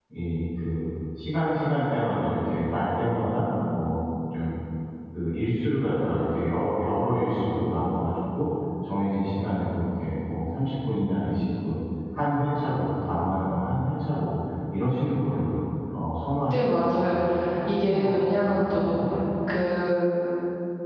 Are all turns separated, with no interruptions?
No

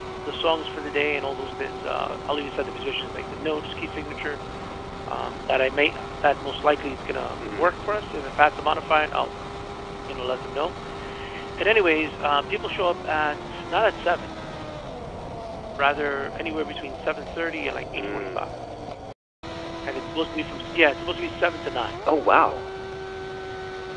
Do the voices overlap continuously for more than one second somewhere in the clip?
No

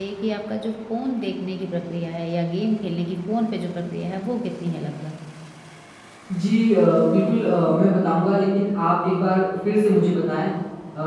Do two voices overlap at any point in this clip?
No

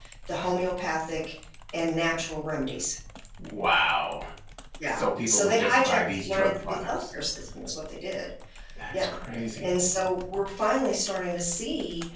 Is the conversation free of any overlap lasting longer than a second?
No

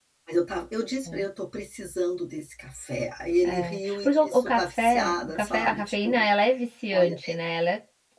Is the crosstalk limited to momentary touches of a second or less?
No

